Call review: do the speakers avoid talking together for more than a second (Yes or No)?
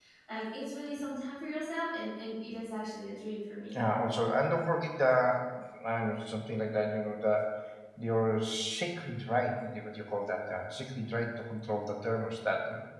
Yes